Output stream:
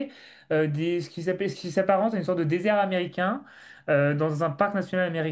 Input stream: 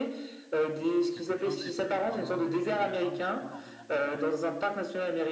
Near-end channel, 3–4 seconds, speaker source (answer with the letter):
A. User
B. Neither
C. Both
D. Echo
C